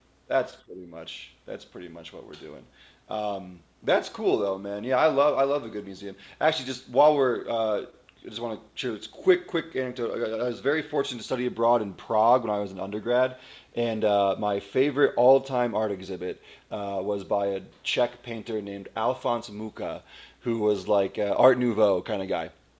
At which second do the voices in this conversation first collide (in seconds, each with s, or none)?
none